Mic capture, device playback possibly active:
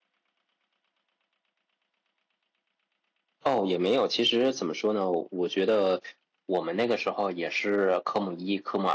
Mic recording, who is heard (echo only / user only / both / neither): user only